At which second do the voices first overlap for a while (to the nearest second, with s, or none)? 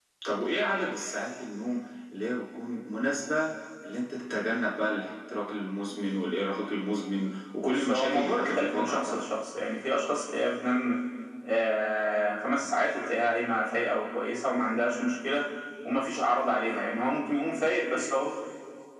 8 s